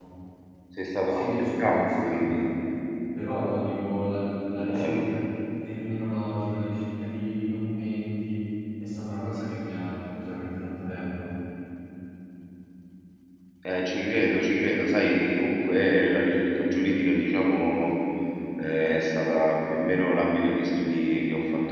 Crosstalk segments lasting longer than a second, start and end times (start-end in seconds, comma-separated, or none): 1.1-2.4